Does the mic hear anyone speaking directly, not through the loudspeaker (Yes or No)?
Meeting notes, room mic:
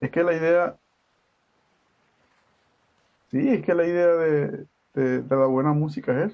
Yes